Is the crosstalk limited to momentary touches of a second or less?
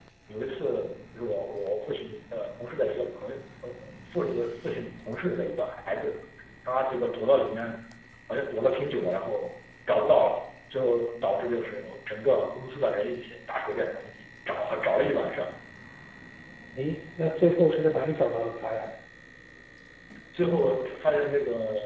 Yes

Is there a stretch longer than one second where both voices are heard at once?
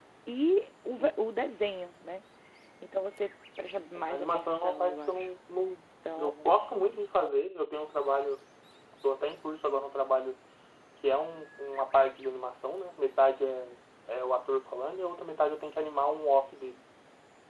Yes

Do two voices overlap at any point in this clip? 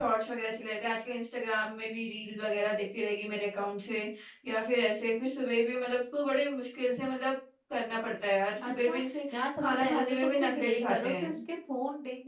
Yes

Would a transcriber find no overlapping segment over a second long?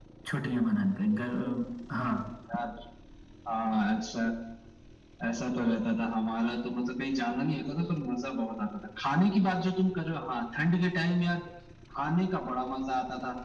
Yes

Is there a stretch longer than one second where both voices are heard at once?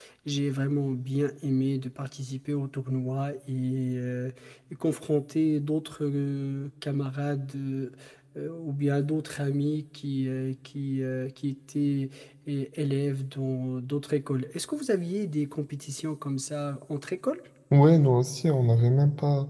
No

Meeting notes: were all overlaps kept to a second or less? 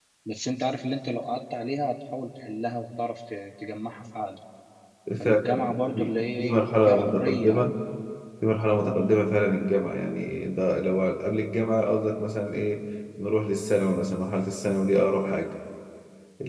No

